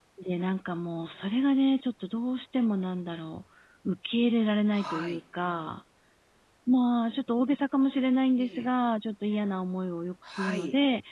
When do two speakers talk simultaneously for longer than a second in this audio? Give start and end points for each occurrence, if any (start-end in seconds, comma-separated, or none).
none